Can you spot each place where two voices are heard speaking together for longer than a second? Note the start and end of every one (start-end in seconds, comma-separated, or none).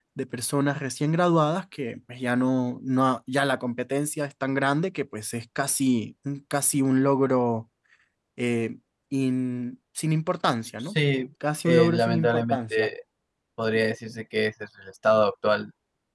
11.7-12.9